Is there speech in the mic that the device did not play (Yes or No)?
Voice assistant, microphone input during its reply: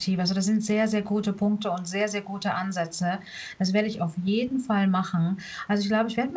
Yes